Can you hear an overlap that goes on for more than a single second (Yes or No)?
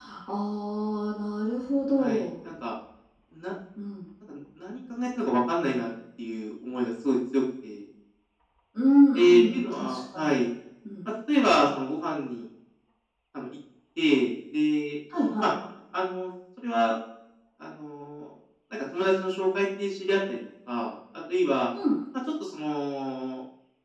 Yes